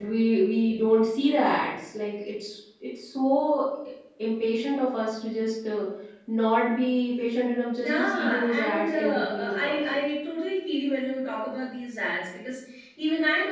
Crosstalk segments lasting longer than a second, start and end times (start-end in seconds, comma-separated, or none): 7.8-10.0